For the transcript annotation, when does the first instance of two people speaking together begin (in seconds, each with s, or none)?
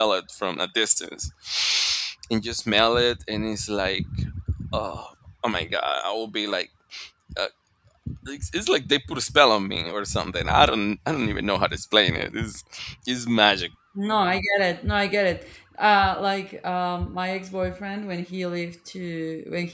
none